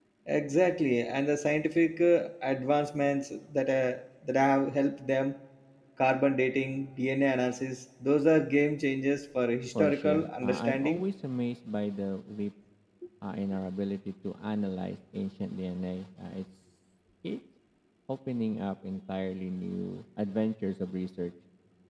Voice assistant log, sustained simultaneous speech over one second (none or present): present